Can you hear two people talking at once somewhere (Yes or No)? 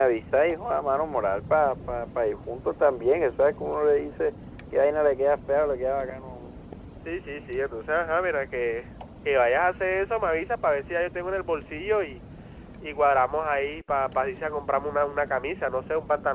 No